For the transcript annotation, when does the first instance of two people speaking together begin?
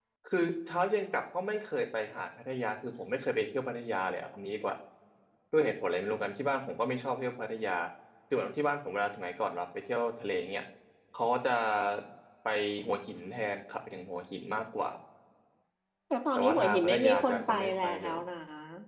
16.4 s

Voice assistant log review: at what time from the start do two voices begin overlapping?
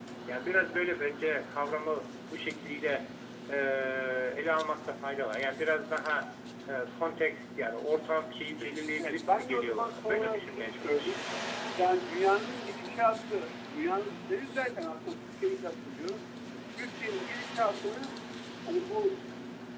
9.0 s

